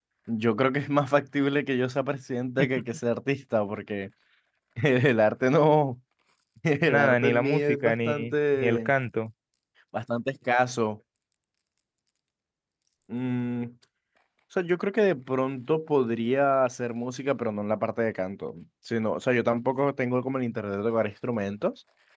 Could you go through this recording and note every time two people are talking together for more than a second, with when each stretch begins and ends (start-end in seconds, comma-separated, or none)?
6.9-8.9